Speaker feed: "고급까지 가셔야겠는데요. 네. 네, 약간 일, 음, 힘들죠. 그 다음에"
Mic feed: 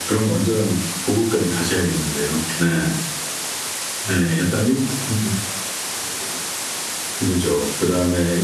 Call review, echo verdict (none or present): present